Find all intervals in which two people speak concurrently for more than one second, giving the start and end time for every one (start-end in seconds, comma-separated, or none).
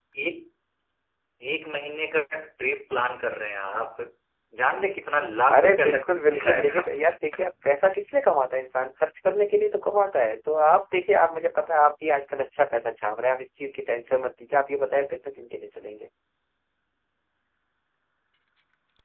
5.6-6.9